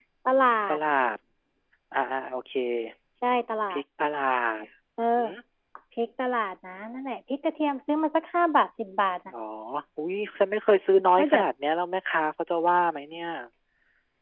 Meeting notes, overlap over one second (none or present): none